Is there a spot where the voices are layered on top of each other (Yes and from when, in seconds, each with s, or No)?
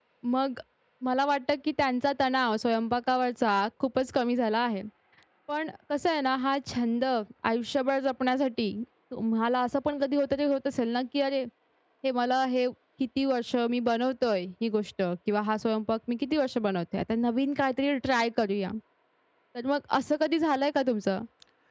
No